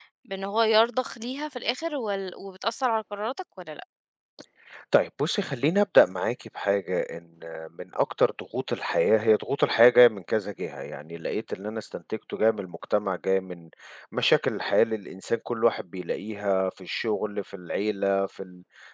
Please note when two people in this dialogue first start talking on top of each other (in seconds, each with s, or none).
none